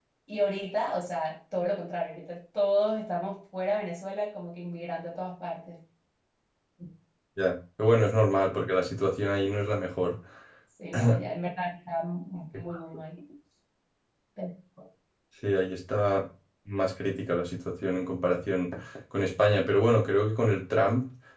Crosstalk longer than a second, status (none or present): none